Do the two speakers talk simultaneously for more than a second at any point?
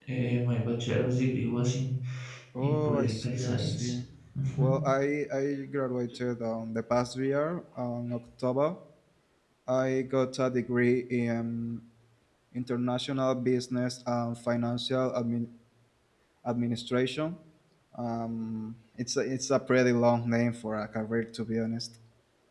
Yes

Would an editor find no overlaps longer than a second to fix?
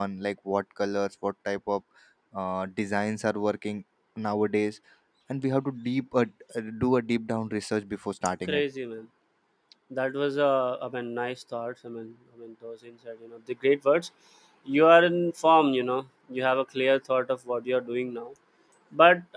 Yes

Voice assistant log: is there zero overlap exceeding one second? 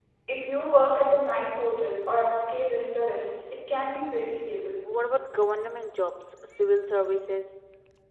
Yes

